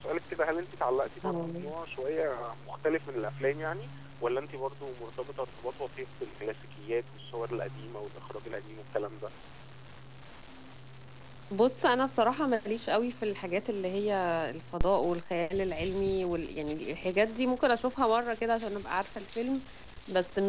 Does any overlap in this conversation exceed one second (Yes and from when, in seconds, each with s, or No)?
No